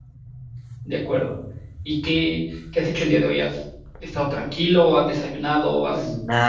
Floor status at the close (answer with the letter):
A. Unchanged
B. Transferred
B